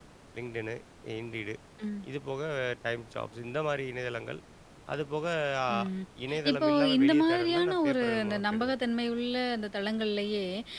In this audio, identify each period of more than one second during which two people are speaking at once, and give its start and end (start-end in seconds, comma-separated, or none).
6.5-8.7